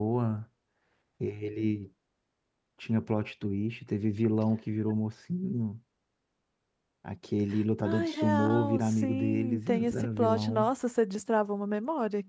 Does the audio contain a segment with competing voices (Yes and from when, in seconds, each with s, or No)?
Yes, from 7.8 s